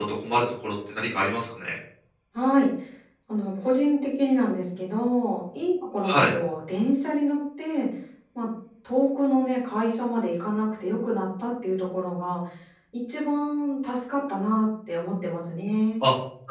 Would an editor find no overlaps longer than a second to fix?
Yes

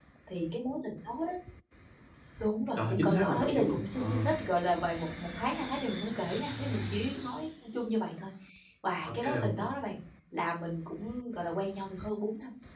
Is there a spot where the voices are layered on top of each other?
Yes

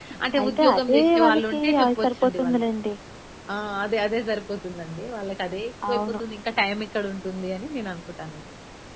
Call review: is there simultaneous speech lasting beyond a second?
Yes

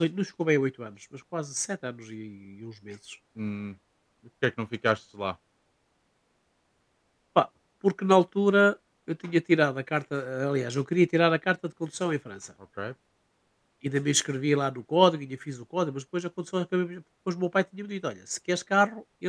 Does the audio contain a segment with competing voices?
No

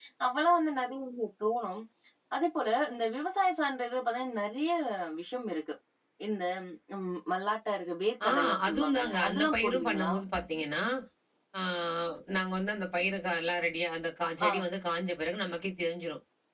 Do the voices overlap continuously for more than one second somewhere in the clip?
Yes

